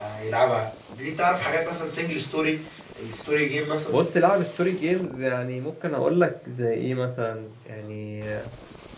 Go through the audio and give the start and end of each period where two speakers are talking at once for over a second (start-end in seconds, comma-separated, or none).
none